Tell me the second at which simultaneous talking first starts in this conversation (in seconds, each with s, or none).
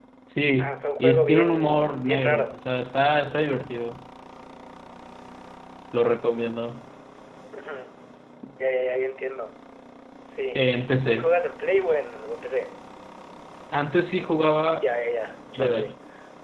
0.6 s